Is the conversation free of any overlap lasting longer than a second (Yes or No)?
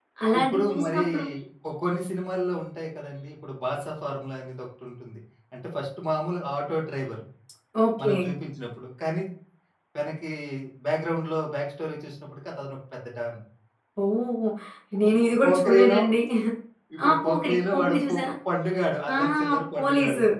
No